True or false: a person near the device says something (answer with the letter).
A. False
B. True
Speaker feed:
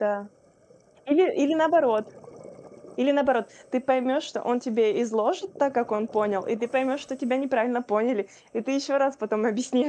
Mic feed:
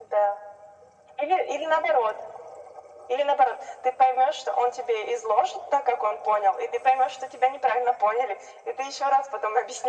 A